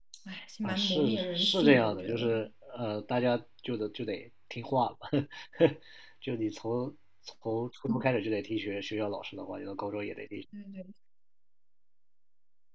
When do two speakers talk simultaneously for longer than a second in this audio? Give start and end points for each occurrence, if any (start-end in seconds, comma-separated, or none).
0.6-2.3